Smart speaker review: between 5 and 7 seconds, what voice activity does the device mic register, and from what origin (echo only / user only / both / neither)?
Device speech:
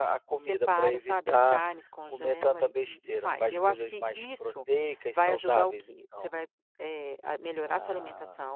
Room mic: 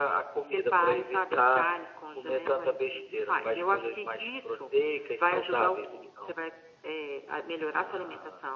echo only